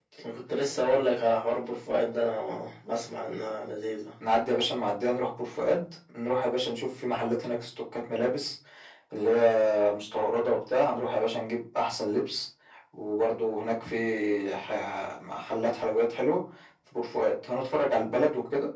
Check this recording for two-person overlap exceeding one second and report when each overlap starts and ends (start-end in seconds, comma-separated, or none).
none